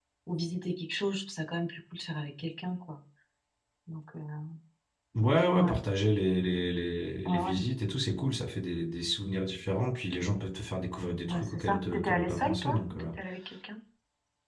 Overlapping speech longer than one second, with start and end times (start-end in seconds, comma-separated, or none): 11.3-13.1